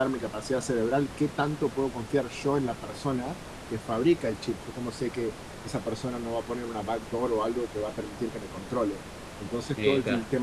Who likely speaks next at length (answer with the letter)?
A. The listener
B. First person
B